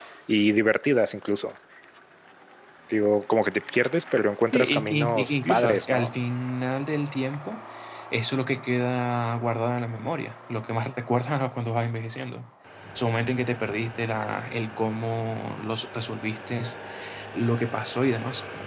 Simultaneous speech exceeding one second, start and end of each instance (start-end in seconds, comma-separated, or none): 4.5-6.1